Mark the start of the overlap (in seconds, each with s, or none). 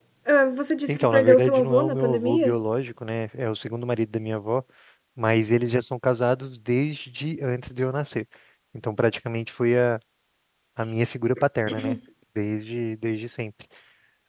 0.9 s